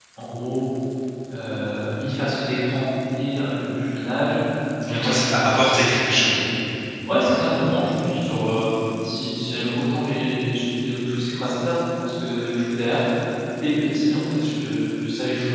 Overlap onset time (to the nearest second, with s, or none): 5 s